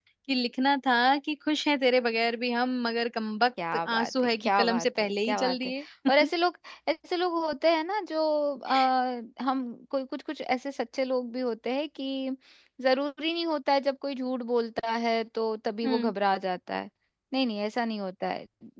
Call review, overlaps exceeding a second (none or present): present